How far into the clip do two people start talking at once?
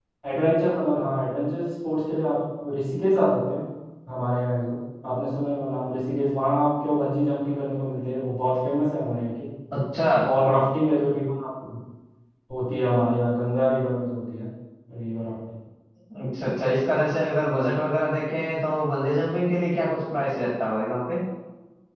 none

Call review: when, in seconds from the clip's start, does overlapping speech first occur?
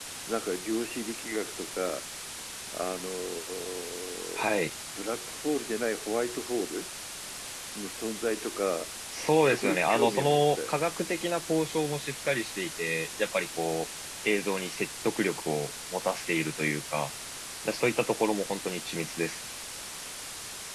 9.4 s

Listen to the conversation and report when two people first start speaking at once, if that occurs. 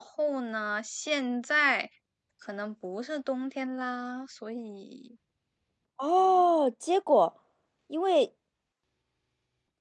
none

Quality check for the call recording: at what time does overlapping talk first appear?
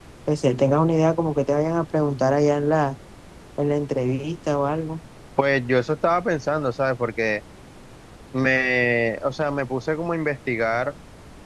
none

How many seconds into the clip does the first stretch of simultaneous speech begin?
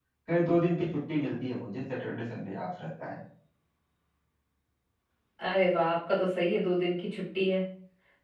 none

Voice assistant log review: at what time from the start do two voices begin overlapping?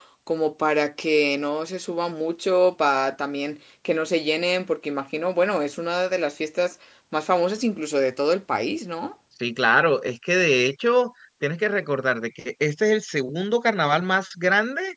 none

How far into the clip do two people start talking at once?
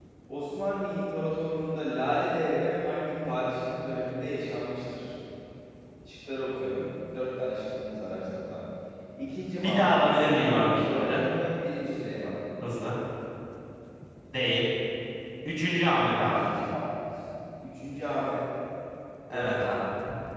9.6 s

